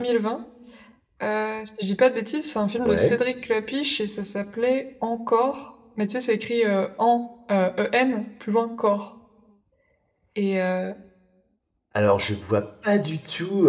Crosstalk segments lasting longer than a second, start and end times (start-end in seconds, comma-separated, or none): none